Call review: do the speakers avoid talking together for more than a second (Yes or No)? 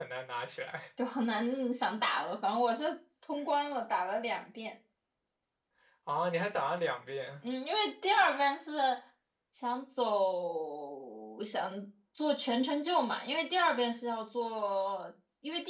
Yes